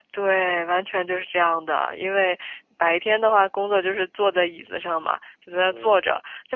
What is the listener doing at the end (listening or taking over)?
listening